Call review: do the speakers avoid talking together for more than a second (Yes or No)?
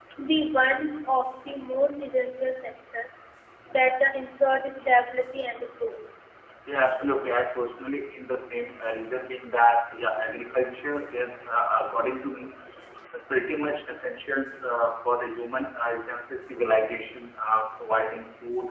Yes